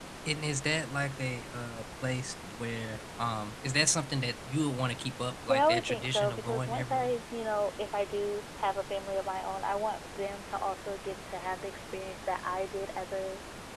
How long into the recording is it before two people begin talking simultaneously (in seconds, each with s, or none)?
5.5 s